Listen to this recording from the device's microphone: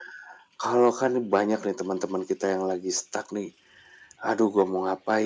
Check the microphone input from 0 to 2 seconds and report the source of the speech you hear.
echo only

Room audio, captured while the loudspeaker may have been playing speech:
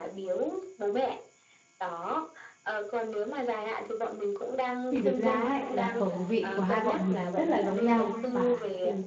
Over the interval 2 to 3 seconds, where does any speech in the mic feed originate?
echo only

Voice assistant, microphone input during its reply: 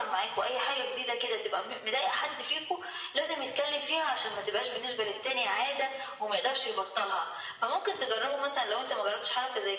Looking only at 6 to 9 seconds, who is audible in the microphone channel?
echo only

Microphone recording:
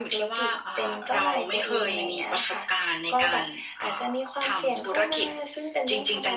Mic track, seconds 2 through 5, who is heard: echo only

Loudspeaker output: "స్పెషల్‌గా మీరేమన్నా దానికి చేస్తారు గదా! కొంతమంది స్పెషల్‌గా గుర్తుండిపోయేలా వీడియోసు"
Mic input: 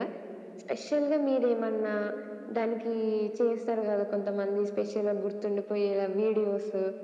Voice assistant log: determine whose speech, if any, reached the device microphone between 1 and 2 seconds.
echo only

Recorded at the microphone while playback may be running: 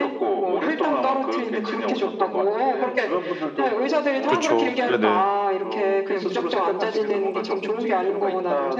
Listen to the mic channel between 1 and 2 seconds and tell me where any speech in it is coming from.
echo only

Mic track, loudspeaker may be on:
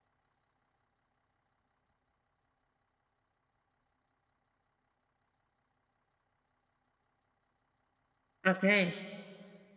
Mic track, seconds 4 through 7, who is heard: neither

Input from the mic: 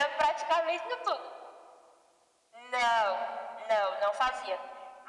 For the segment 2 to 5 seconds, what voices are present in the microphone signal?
echo only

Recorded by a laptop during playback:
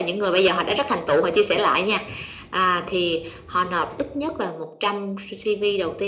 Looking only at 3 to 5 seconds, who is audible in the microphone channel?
echo only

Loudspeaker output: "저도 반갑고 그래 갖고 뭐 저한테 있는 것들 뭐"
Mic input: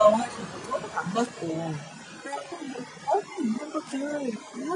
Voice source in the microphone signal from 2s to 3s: echo only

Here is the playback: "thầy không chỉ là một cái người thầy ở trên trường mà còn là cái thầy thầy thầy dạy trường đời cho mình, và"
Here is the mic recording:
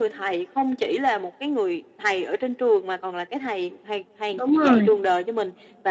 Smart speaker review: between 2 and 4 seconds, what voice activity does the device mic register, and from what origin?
echo only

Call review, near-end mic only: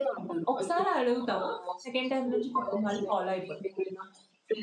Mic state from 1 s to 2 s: both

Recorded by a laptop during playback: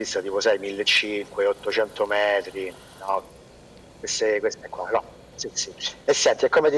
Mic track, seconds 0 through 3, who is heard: echo only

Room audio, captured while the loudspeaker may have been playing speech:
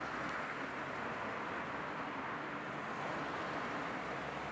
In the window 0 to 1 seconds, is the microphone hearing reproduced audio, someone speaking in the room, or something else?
neither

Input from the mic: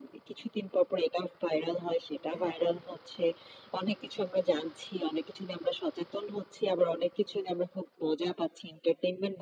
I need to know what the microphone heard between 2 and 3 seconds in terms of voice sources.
both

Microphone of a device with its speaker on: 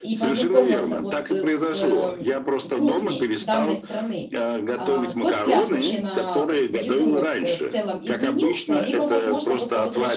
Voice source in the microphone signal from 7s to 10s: both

